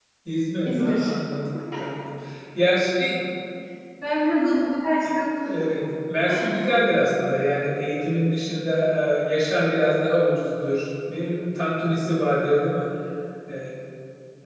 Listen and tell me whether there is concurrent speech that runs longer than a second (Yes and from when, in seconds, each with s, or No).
No